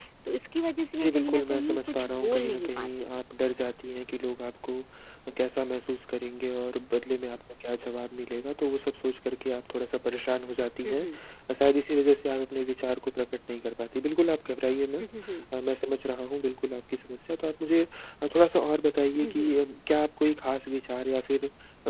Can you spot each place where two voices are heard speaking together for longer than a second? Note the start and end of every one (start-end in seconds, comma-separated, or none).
0.9-3.2